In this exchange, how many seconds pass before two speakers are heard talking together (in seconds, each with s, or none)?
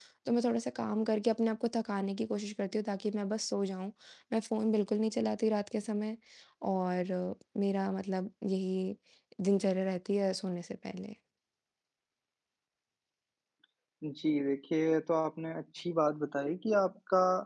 none